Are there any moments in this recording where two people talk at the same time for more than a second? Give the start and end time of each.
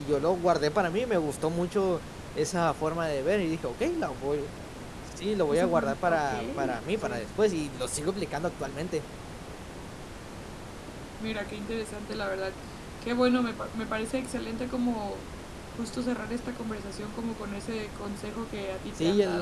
5.5-7.2

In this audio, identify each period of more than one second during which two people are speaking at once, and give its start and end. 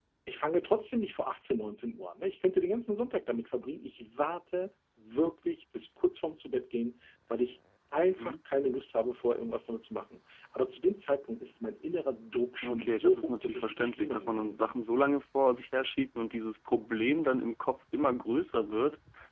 12.6-14.8

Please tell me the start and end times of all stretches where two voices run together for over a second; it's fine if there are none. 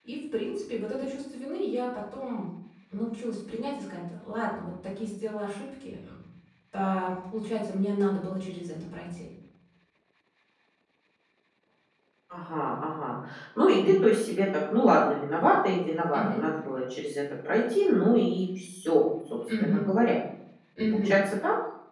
none

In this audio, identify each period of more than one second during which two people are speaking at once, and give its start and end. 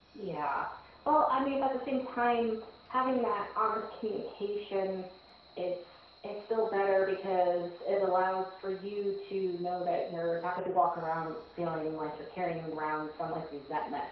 none

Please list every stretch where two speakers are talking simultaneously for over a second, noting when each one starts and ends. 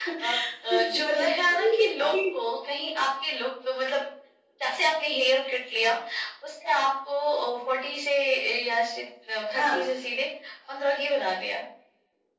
0.7-2.1

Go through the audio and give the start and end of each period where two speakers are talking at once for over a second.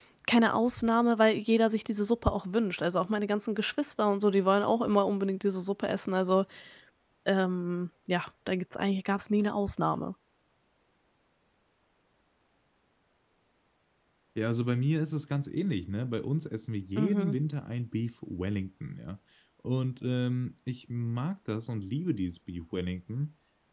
none

